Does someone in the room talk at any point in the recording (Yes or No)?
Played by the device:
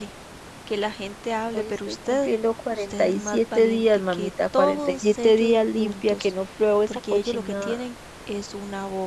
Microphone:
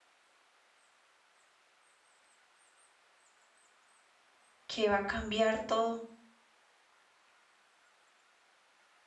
Yes